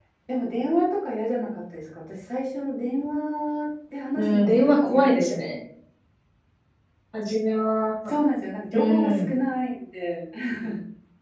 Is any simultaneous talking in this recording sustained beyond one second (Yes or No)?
Yes